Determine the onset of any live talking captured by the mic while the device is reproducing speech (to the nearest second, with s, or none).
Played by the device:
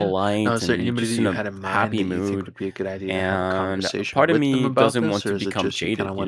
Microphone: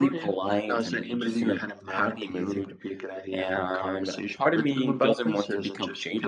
none